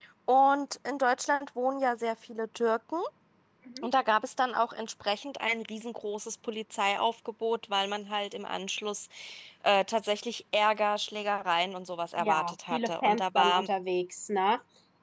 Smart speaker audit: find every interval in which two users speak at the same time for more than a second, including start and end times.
12.2-13.7

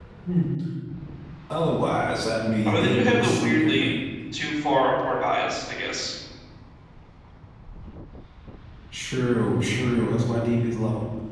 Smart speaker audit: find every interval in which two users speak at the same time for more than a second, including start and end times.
2.6-3.9

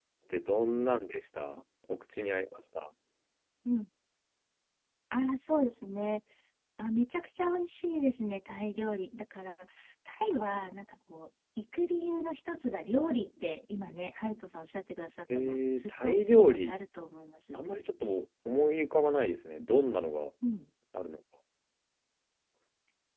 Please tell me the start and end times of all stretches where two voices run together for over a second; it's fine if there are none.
15.3-16.7

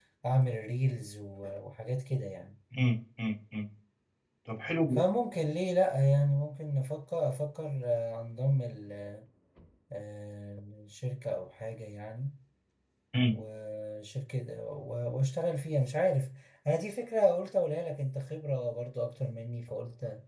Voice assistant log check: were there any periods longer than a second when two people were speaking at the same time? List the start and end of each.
none

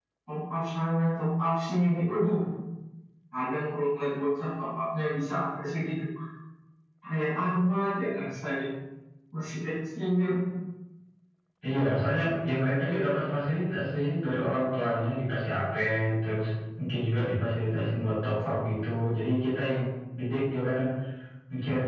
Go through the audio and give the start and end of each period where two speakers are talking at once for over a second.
none

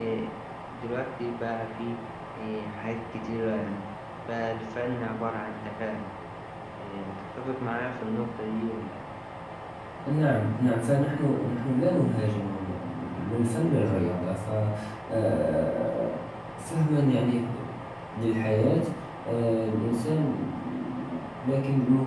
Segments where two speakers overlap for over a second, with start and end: none

